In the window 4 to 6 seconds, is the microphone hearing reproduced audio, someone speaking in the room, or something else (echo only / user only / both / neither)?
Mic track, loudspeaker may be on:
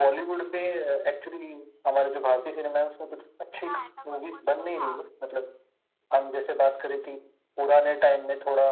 both